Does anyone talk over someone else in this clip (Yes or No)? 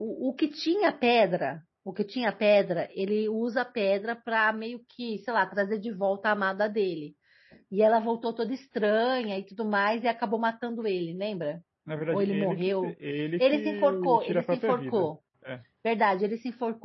Yes